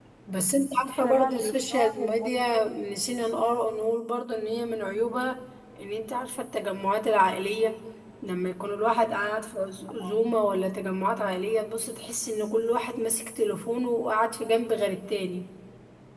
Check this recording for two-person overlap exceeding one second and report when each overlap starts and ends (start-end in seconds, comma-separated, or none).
0.9-2.5